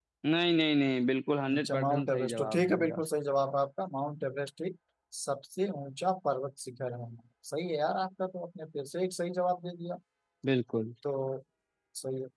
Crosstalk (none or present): present